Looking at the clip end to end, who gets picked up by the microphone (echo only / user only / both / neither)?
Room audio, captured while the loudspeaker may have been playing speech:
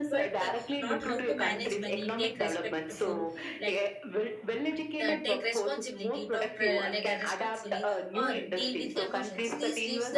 both